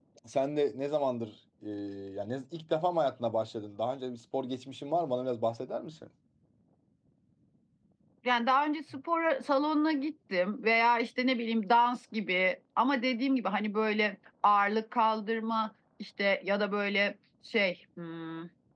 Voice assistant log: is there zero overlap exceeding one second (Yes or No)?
Yes